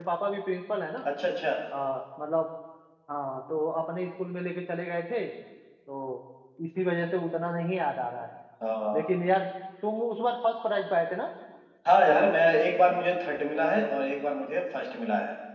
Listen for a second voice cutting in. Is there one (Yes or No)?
No